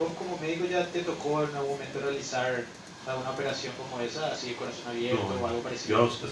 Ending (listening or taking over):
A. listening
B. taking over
B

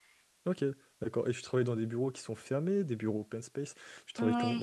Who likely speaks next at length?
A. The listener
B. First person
B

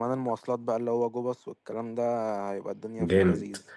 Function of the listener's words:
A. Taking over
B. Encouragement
A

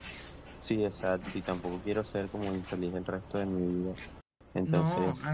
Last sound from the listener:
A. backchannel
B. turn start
B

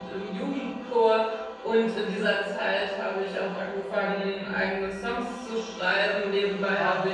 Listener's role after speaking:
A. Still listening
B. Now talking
A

